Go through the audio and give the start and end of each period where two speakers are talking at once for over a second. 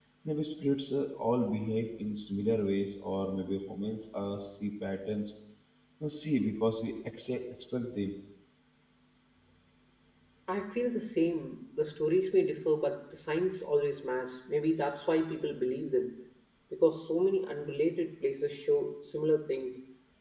none

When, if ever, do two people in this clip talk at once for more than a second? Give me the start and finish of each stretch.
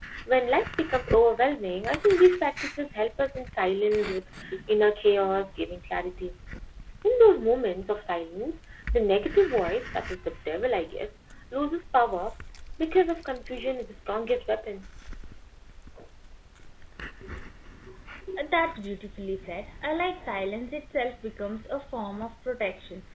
none

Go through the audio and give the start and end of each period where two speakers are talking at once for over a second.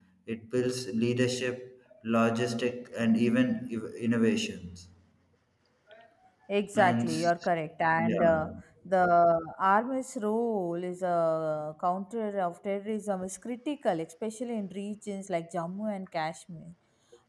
none

